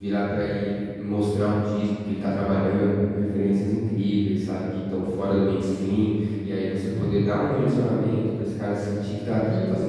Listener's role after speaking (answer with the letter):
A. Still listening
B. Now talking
A